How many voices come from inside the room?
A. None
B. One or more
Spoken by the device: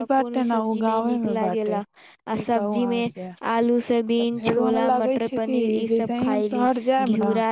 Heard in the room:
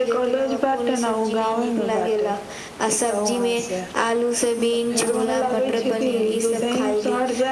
B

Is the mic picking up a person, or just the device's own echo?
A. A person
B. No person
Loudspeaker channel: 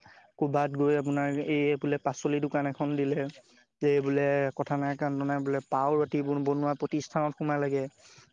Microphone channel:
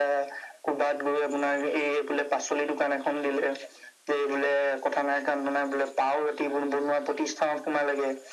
B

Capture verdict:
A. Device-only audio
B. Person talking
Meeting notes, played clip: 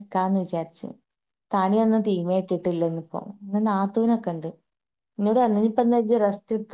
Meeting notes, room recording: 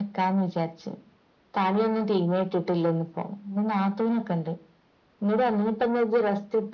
A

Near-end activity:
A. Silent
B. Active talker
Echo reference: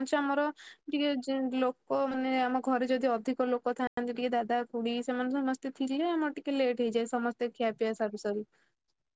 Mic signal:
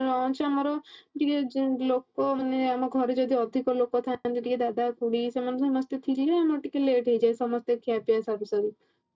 A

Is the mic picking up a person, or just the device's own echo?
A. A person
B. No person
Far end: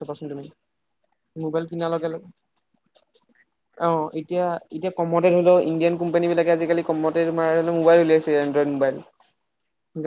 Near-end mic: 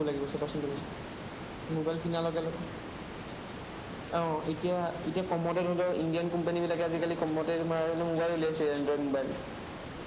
B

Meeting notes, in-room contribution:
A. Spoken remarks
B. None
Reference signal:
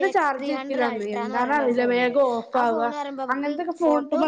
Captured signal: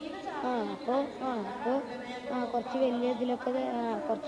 A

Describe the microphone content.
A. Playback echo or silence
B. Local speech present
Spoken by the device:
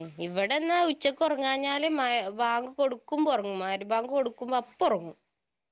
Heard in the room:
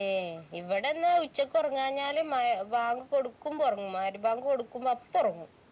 A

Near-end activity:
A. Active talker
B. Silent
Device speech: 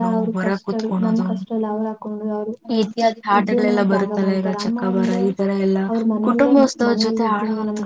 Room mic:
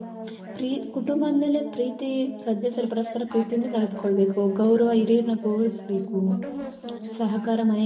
A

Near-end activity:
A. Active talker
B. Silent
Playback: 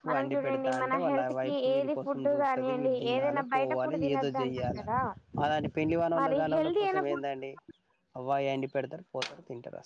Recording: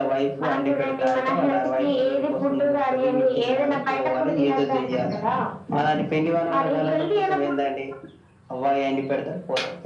B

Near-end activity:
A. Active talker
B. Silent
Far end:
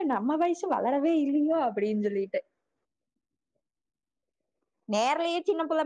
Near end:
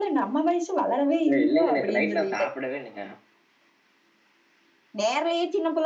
A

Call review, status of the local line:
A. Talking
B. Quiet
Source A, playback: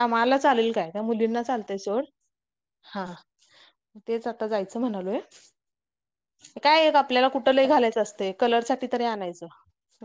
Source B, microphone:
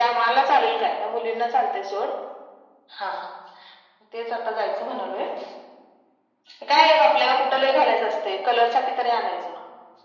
B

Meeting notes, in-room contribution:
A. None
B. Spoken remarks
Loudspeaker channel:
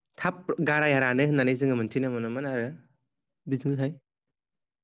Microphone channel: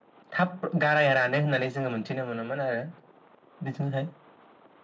A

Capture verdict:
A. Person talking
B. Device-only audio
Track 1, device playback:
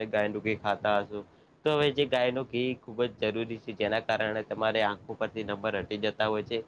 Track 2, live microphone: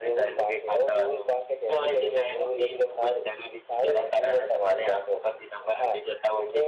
A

